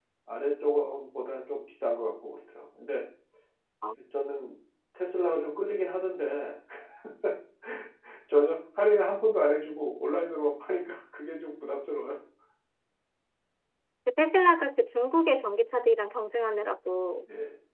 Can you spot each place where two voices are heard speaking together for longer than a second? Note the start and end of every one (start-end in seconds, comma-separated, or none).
none